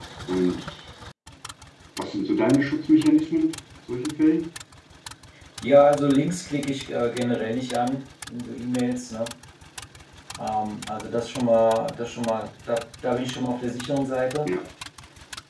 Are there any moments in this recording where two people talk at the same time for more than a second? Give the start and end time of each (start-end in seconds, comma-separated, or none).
none